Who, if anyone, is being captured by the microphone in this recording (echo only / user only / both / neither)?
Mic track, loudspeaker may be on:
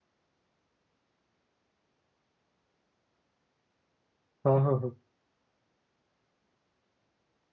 user only